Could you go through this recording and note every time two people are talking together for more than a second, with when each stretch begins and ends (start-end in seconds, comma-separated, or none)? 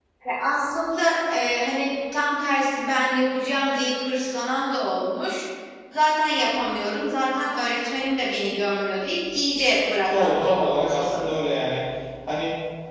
10.1-11.4